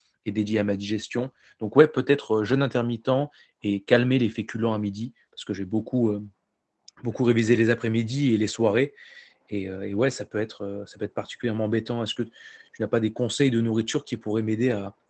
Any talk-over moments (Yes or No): No